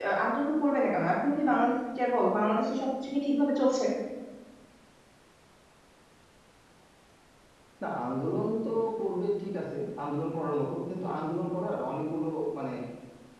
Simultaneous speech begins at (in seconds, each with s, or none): none